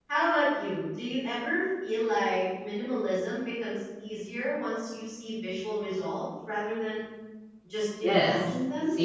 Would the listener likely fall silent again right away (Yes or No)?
No